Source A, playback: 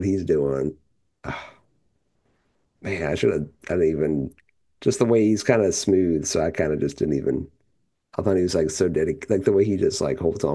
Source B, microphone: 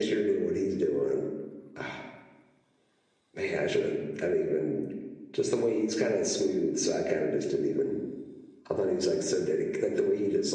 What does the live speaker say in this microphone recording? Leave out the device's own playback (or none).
none